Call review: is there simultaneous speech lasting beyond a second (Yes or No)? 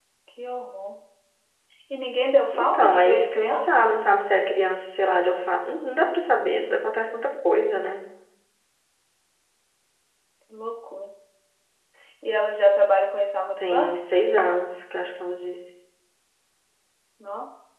Yes